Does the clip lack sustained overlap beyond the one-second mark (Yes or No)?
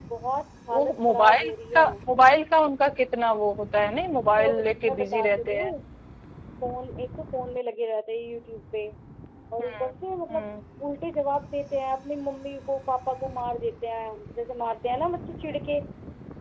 No